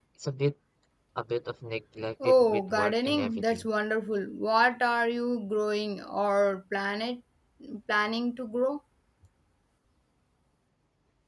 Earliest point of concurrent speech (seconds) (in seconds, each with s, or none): 2.2 s